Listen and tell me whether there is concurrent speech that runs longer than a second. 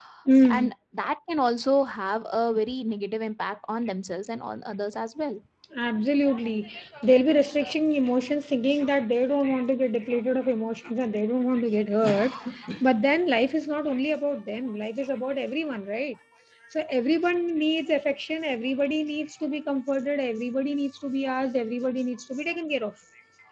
No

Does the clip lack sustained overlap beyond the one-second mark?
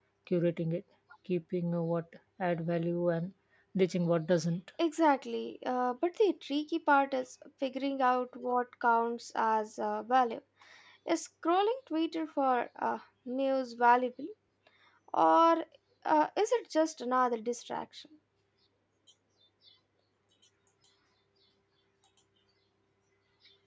Yes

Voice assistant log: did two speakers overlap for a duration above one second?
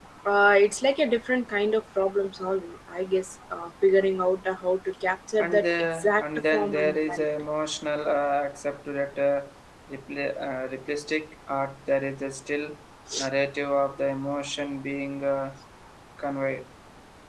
Yes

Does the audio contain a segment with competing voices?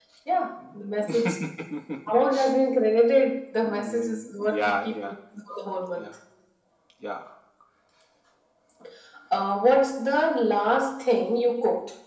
Yes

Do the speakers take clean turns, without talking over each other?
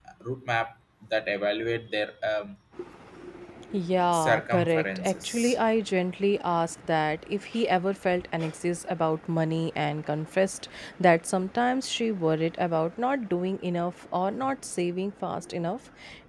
No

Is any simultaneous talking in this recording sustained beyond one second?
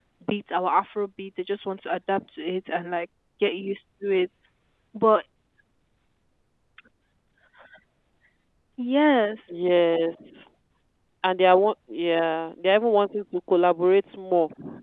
No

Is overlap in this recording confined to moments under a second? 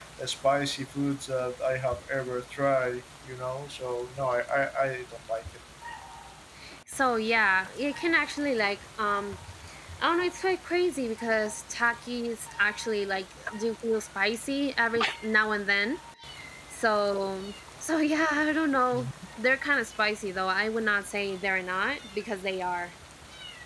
Yes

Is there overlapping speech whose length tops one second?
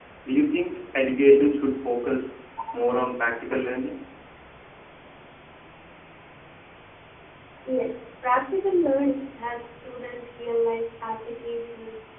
No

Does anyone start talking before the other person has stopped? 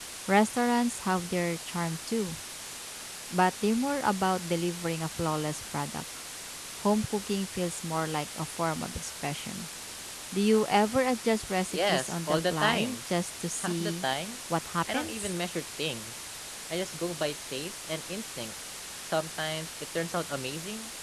Yes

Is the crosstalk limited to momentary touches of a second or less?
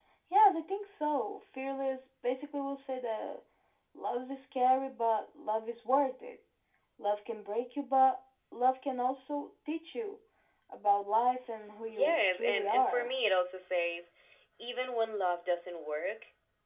No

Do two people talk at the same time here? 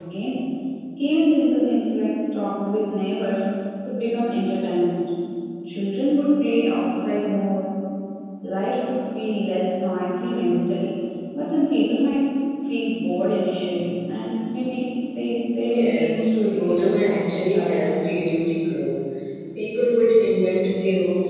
Yes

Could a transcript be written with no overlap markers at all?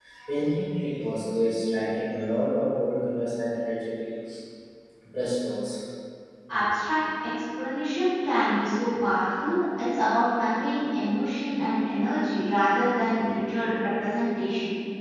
Yes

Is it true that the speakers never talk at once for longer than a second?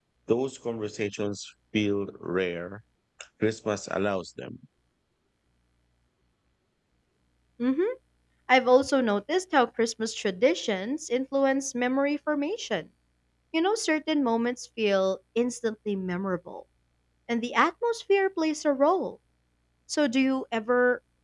Yes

